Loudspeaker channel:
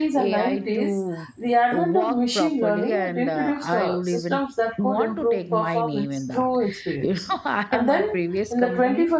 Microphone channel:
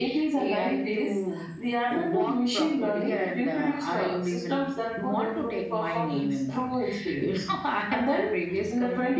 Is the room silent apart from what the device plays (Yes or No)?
Yes